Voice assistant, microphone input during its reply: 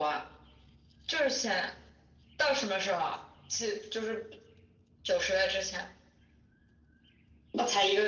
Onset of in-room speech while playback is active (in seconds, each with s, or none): none